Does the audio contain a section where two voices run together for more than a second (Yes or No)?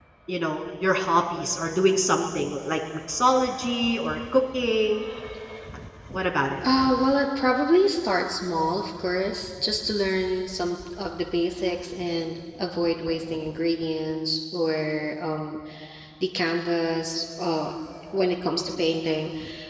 No